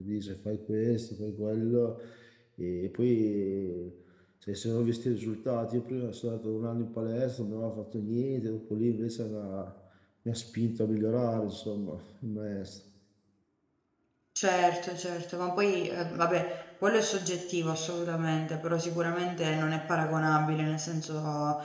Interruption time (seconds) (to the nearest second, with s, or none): none